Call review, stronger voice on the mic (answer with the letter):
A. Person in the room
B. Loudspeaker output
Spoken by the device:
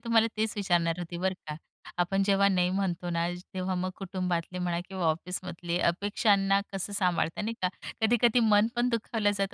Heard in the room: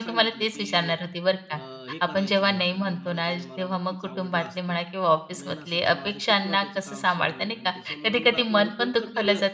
B